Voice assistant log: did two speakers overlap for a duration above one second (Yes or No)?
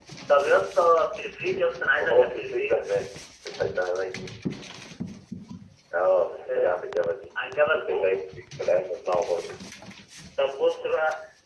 Yes